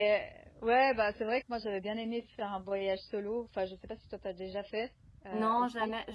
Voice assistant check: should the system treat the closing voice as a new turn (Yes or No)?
Yes